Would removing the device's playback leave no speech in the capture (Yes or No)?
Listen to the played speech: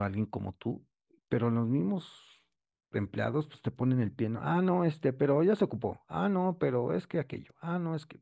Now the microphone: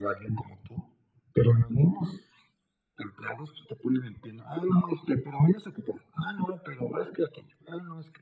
Yes